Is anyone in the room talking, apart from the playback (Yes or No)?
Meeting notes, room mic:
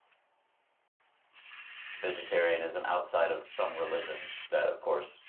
Yes